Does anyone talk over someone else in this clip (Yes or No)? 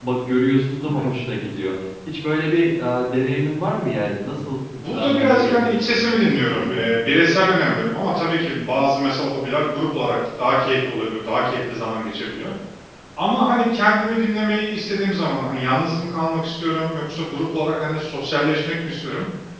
Yes